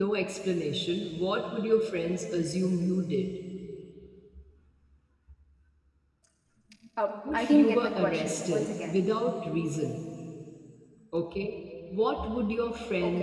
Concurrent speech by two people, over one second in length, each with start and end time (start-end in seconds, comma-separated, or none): 7.3-9.0